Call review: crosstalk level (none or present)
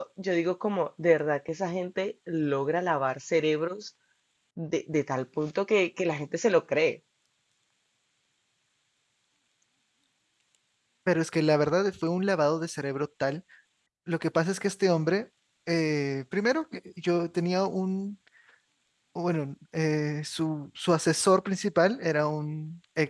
none